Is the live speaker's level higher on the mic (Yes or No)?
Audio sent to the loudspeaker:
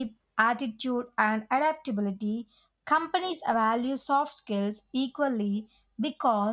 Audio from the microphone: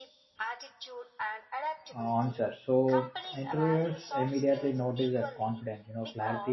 Yes